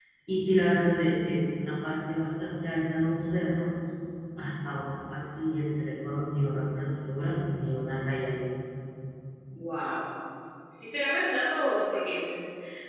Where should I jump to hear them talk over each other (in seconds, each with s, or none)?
none